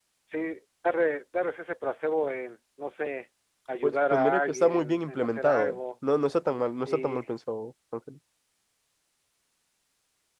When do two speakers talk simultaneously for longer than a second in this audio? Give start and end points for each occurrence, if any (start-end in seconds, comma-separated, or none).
3.8-5.8